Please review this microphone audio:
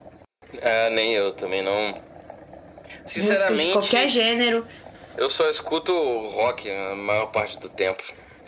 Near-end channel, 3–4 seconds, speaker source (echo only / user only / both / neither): both